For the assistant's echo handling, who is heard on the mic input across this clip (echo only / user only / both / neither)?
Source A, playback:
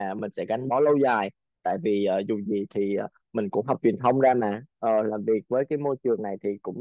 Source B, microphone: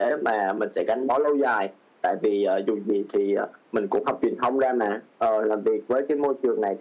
echo only